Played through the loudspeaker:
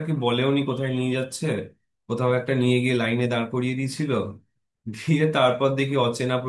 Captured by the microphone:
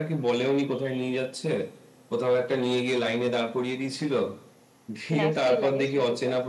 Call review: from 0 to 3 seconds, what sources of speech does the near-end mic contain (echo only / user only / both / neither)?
echo only